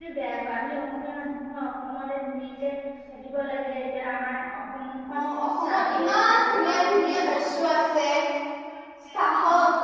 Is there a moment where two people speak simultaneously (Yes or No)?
Yes